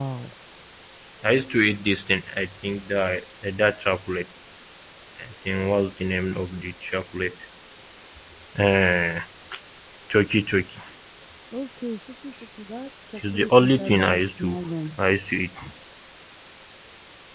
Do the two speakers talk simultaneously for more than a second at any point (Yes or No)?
Yes